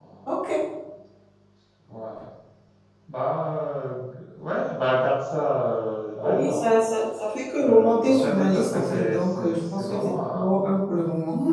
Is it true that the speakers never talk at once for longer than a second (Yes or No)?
No